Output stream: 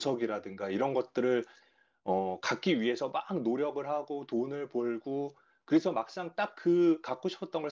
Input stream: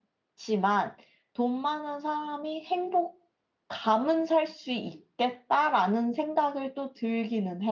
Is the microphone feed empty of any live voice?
No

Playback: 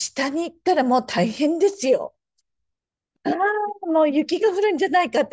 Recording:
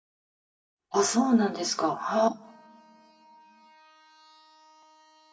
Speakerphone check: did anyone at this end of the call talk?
Yes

